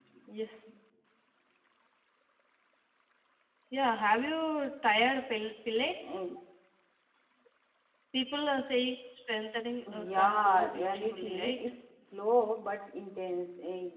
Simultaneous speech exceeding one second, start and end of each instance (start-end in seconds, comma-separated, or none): 10.1-11.6